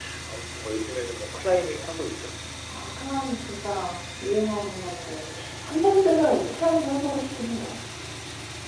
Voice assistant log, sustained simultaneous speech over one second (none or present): none